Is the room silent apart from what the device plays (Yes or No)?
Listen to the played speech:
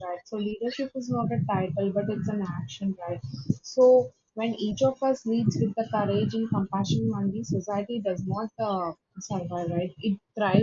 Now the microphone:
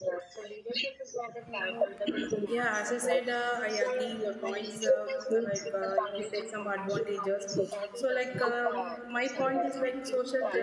No